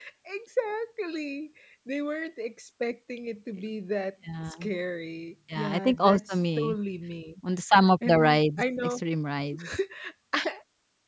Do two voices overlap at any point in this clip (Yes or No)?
Yes